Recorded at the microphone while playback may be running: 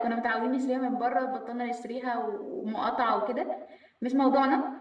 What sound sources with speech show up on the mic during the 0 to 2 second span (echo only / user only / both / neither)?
echo only